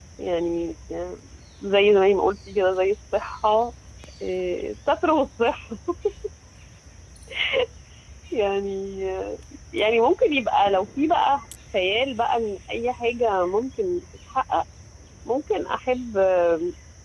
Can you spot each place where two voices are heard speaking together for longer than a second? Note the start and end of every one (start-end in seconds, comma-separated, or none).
none